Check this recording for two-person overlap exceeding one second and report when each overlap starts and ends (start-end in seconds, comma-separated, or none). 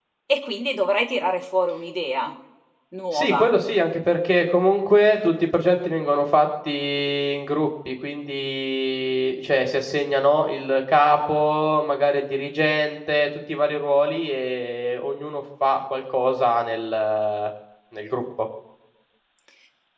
none